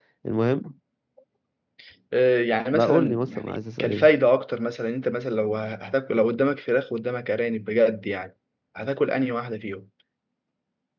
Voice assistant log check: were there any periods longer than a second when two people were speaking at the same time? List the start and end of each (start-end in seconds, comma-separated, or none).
2.7-4.1